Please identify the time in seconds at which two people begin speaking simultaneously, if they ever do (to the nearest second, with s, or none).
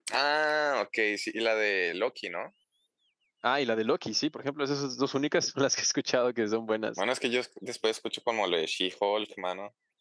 none